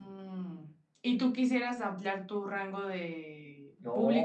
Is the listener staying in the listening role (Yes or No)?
No